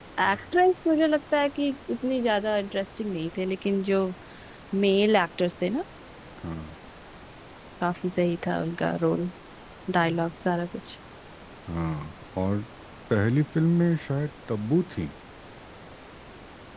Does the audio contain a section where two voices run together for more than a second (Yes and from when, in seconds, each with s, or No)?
No